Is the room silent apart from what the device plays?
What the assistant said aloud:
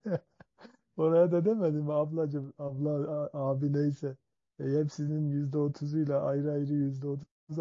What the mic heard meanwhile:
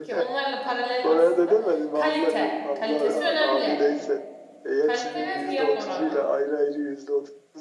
No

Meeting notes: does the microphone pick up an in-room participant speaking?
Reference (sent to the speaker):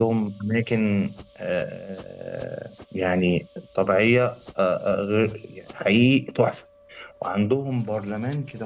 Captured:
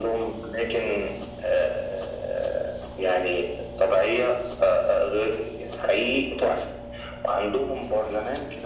No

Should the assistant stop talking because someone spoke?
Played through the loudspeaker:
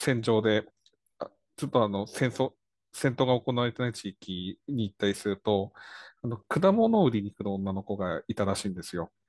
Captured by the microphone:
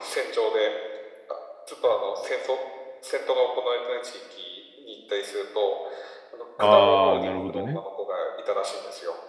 Yes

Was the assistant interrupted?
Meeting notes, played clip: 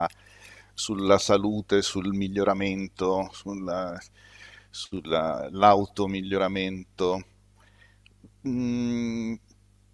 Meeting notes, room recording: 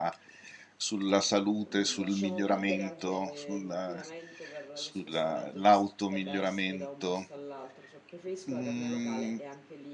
Yes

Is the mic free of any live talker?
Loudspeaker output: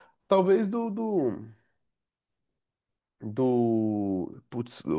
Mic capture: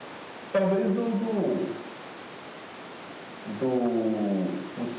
Yes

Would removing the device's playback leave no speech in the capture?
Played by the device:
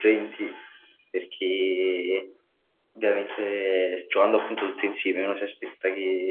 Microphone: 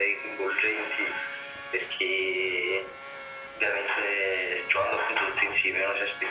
Yes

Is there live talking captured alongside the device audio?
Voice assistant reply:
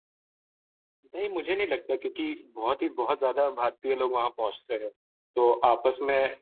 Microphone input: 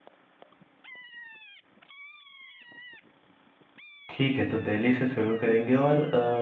Yes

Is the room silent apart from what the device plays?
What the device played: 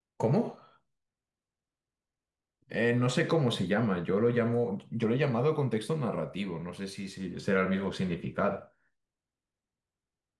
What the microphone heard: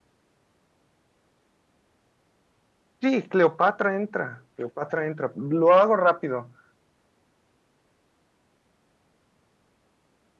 No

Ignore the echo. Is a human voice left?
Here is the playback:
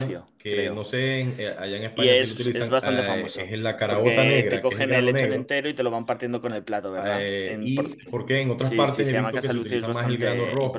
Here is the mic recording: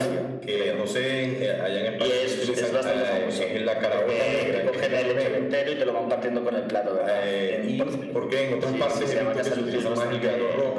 Yes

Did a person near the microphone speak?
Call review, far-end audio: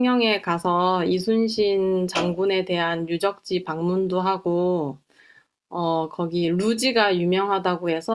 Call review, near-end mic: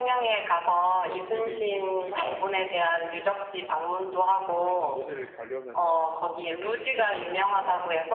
Yes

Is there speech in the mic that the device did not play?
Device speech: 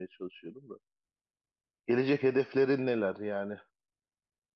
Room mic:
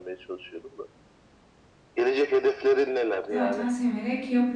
Yes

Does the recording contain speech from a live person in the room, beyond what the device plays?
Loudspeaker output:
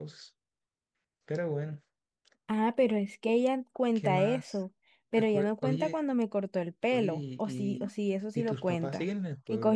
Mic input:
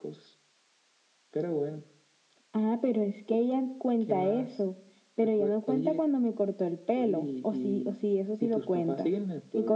No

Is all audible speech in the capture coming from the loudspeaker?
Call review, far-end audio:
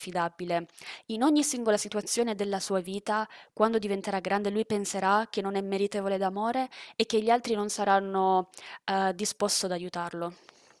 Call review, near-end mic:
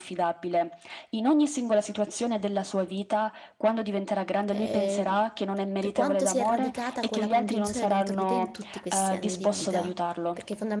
No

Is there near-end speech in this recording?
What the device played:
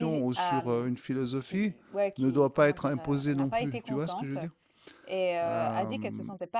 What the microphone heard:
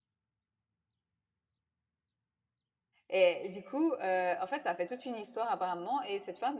Yes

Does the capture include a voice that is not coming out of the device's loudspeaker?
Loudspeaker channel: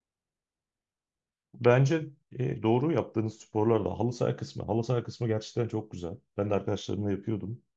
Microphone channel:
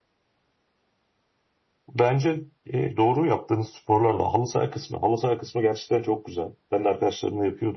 No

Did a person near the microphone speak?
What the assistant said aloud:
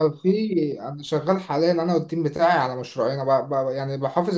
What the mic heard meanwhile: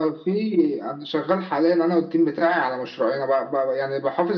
No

